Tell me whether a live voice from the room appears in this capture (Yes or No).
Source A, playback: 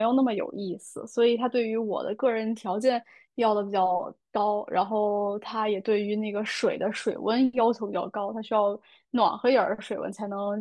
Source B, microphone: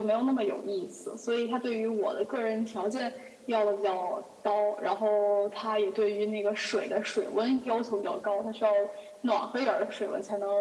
No